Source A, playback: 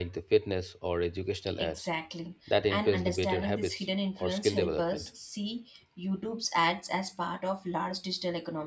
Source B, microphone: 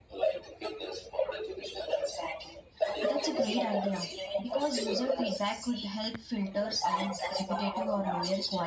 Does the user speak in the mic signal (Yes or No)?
Yes